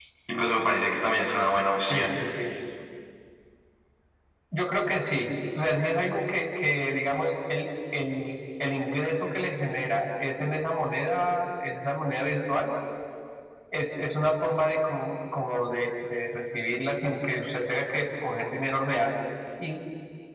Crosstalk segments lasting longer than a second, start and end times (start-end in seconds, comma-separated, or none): none